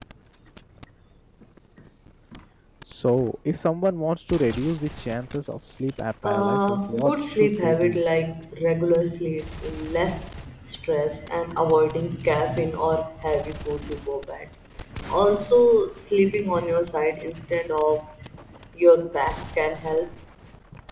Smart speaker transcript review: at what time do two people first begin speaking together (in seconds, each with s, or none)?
6.2 s